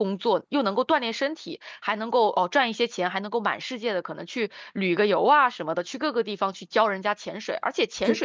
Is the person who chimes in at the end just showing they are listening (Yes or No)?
Yes